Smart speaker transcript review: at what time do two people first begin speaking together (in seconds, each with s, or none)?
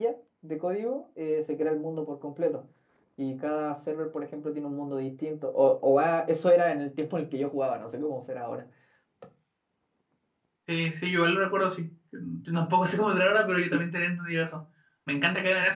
none